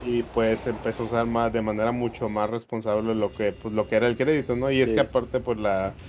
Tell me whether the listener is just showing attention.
Yes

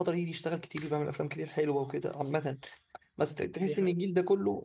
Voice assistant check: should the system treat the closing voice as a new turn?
No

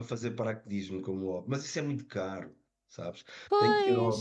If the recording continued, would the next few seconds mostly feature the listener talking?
No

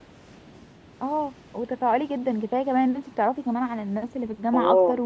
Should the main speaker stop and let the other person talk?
Yes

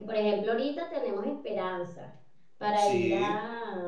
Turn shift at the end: No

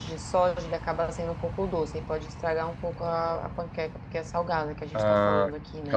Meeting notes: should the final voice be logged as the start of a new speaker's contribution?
Yes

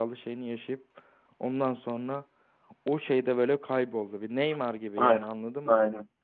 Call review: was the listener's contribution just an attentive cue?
No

